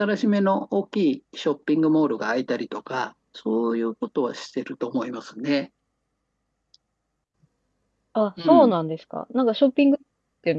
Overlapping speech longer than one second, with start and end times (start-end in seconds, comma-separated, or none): none